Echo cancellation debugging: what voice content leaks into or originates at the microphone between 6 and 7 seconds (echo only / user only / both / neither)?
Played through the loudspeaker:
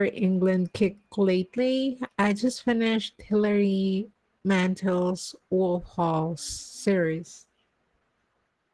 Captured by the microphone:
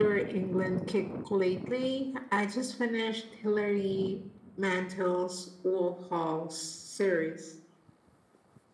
echo only